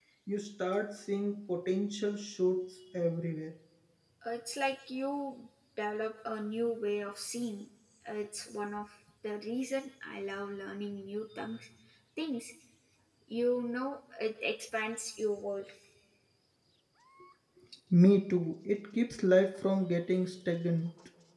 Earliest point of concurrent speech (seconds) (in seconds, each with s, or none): none